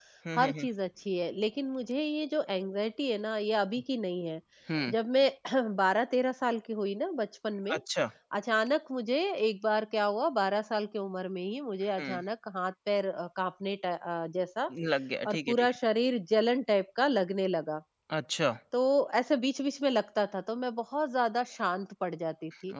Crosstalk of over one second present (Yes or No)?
No